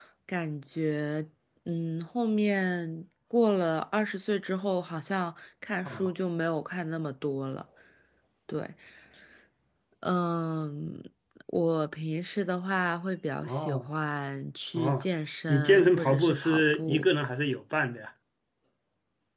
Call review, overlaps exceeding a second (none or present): present